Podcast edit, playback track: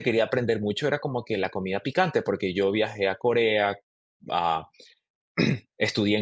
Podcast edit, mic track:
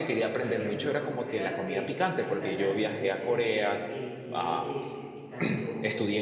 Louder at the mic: echo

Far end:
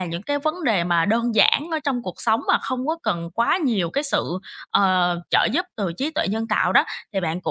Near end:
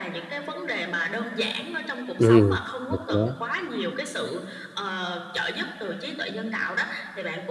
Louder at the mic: user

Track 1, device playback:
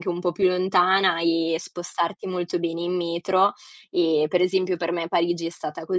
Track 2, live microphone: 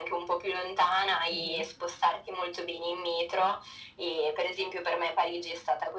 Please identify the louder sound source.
echo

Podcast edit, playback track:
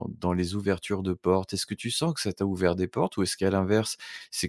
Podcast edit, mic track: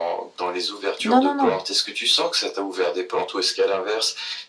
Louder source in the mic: user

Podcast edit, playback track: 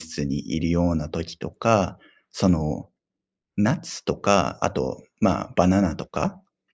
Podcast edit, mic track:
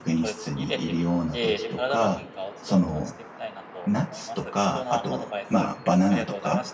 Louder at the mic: echo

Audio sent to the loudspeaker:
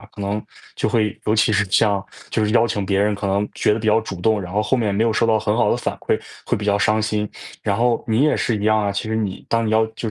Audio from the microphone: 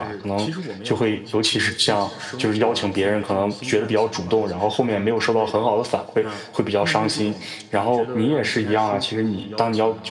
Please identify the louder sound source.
echo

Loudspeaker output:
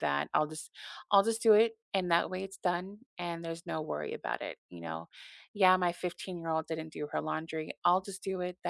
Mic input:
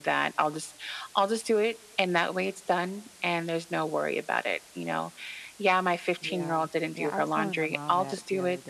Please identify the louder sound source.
echo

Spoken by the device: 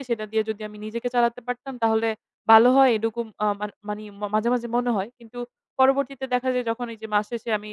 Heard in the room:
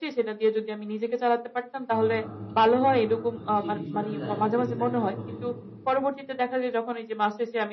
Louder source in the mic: echo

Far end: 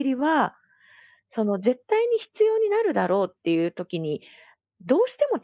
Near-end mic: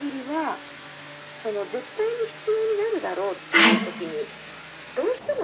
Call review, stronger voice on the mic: user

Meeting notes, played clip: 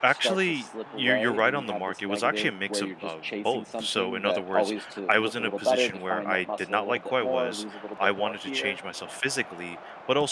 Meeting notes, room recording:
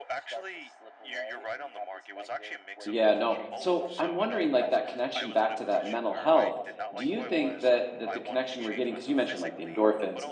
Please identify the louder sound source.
user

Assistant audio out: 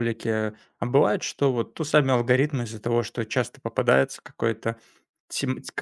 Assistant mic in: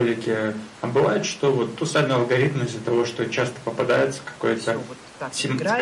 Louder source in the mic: echo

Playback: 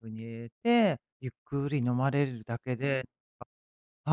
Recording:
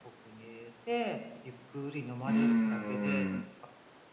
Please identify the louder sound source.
user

